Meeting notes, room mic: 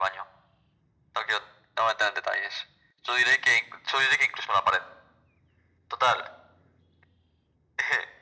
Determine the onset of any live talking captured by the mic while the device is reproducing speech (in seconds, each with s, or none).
none